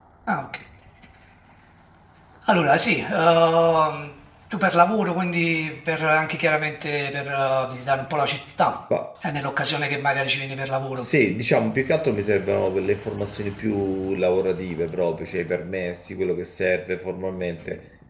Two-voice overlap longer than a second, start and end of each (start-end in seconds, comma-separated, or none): none